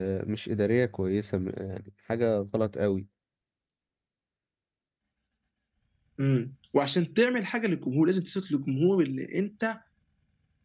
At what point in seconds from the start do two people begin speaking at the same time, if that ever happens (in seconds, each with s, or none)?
none